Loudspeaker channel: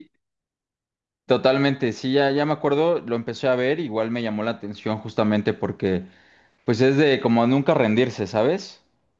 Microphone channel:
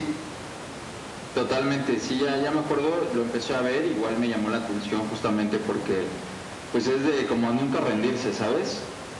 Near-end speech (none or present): none